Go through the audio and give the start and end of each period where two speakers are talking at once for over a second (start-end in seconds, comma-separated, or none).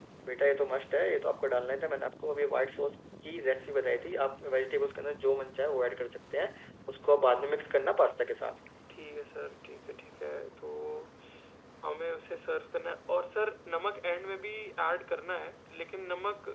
none